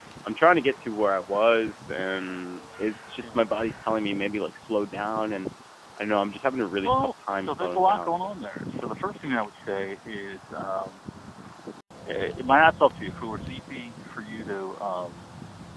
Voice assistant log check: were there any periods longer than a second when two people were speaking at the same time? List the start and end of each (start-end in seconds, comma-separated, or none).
6.8-8.6